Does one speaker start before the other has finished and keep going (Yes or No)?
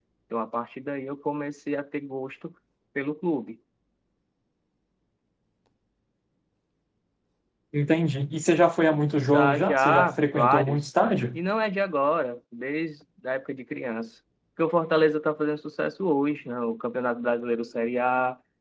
Yes